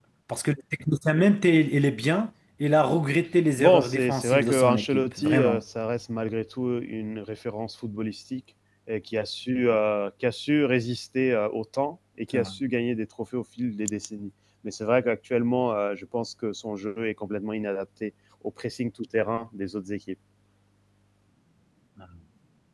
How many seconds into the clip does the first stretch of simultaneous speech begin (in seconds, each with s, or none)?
3.6 s